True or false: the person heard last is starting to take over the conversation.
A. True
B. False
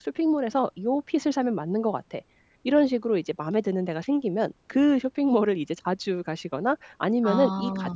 B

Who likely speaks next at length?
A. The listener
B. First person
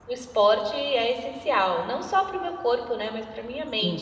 A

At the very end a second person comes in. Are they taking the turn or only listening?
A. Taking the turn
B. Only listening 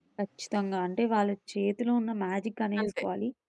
B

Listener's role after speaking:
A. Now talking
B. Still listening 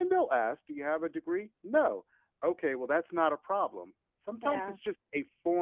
B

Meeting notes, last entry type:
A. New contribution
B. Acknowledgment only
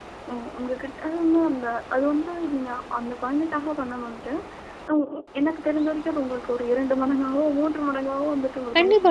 A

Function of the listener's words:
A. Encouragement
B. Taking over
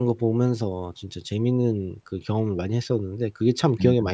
B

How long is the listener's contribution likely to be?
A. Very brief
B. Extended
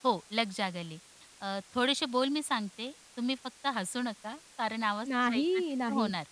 B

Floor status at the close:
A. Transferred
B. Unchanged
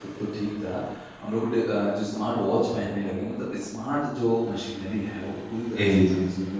B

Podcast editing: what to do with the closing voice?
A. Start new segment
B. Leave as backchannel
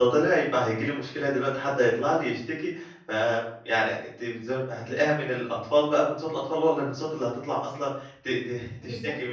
A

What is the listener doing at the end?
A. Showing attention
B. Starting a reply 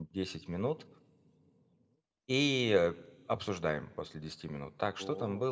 A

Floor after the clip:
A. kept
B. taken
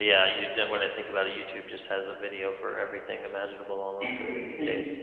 B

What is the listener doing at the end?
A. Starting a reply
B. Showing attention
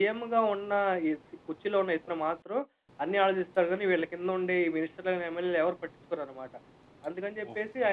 B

